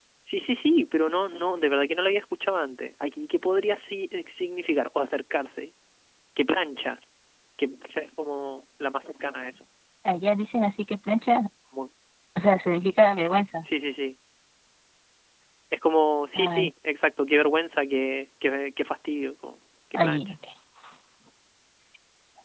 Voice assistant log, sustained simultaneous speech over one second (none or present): none